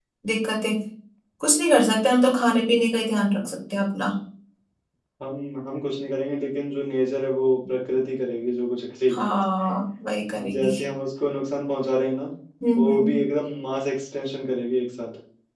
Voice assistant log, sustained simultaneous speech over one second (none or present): none